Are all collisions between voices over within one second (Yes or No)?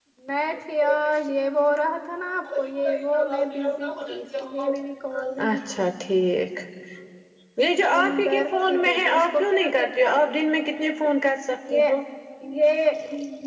No